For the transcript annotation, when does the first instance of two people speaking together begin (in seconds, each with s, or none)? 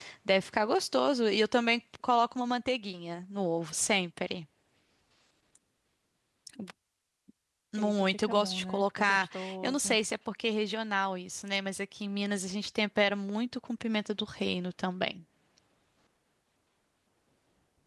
7.8 s